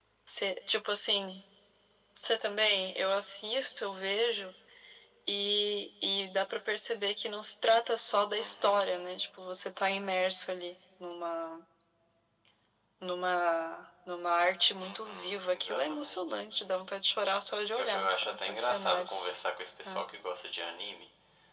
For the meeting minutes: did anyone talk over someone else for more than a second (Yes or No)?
Yes